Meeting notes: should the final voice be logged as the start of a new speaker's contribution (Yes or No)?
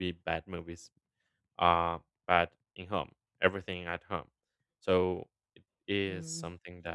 Yes